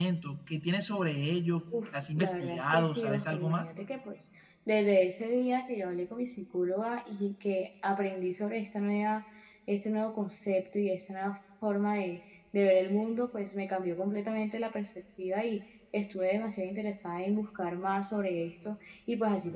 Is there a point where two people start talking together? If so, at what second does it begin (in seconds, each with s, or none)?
1.7 s